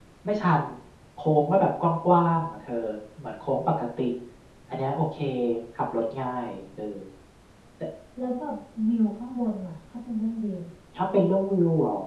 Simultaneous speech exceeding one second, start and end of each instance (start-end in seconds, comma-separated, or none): none